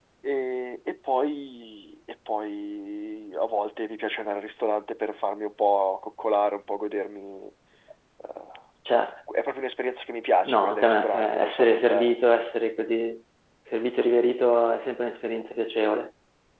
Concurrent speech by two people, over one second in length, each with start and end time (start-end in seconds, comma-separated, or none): 10.4-12.2